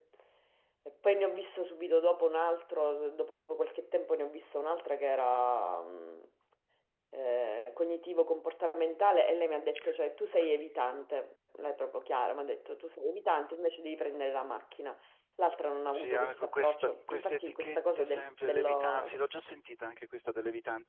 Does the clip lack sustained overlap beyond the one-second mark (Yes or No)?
No